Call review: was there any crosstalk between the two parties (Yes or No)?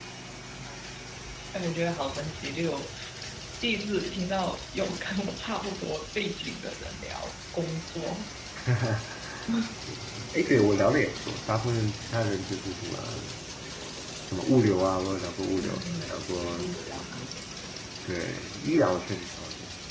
Yes